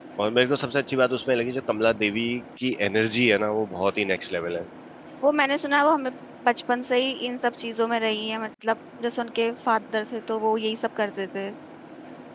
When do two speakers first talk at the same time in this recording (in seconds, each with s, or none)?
none